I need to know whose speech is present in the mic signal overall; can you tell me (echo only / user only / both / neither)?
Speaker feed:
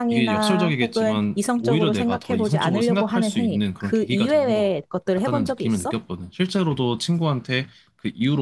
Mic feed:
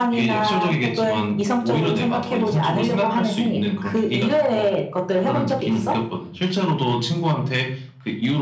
echo only